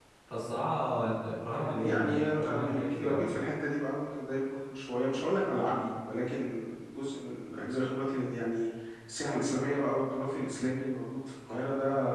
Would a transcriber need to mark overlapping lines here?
Yes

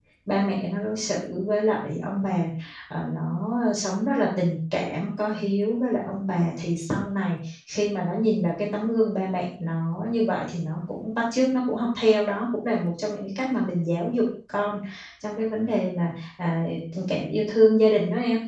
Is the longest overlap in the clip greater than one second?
No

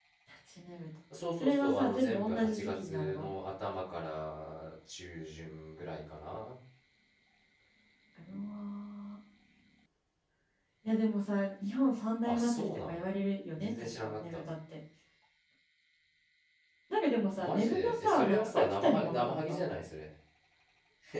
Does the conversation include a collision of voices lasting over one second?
Yes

